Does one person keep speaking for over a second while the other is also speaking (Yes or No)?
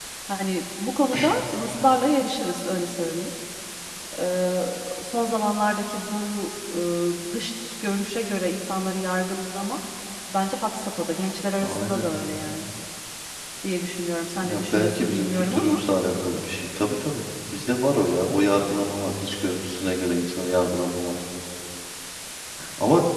Yes